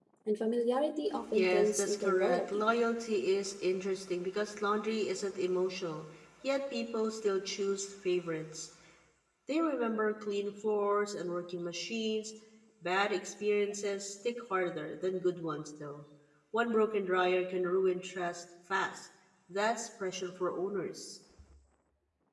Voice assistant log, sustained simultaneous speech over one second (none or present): present